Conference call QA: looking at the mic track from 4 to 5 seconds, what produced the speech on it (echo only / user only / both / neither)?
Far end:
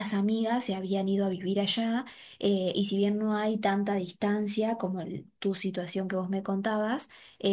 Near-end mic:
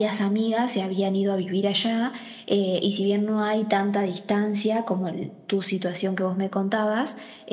echo only